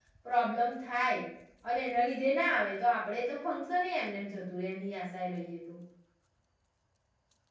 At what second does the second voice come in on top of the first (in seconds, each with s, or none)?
none